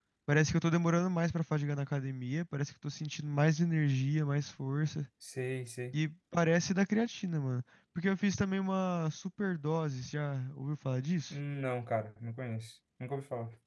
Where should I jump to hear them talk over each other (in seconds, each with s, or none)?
none